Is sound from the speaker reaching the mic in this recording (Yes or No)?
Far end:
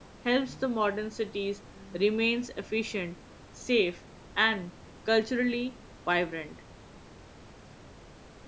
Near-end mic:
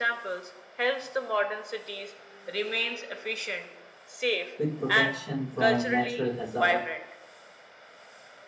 Yes